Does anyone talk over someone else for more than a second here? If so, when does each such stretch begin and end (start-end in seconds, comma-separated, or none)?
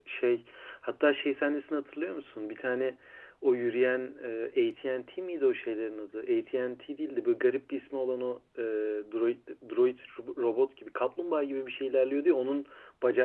none